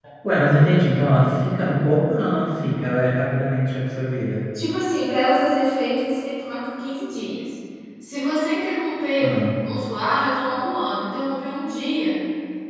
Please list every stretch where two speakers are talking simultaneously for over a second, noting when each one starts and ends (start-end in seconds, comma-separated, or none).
none